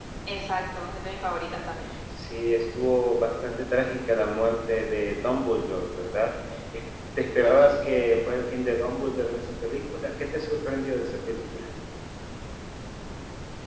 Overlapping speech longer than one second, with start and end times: none

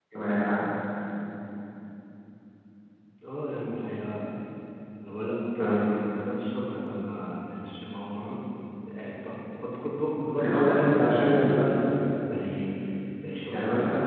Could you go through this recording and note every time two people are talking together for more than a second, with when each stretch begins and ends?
10.4-11.8

